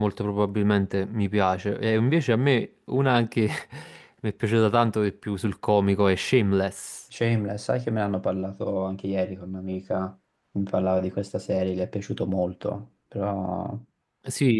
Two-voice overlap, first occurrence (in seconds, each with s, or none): none